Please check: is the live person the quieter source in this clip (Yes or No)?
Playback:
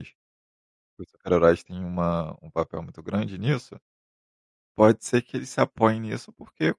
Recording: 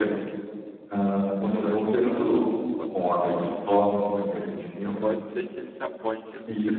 No